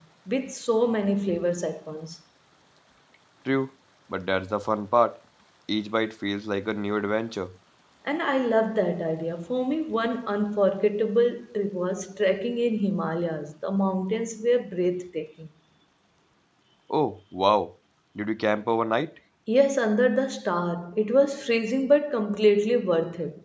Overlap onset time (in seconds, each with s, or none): none